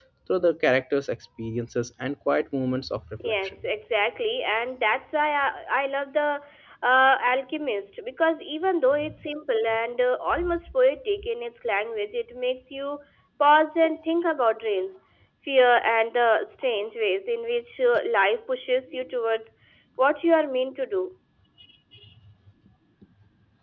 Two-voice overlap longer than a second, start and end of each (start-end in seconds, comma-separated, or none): none